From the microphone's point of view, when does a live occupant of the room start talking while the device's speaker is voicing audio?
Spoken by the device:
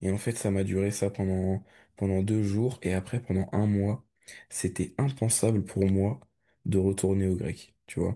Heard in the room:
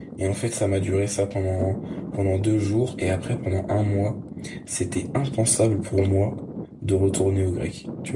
none

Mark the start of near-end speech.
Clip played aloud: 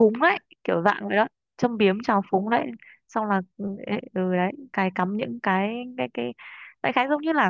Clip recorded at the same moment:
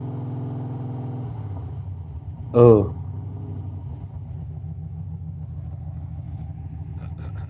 2.5 s

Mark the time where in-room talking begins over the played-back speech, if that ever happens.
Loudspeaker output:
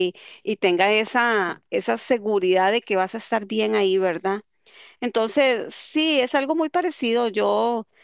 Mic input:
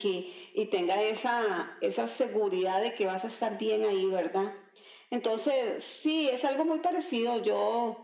none

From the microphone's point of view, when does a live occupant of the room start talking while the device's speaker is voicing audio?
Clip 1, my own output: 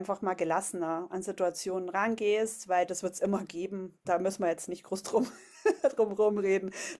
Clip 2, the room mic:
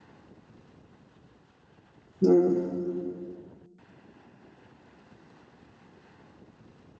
2.2 s

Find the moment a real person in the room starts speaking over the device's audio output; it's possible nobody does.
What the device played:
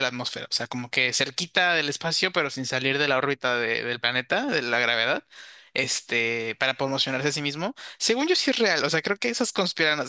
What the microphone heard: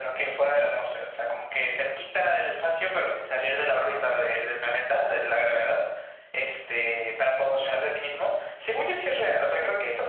none

